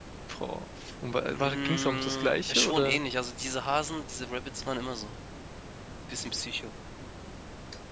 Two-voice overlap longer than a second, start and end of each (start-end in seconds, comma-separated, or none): 1.4-3.0